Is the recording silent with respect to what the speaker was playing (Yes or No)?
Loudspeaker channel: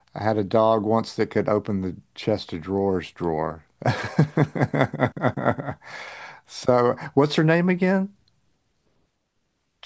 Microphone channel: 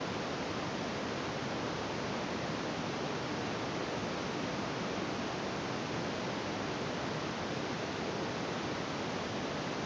Yes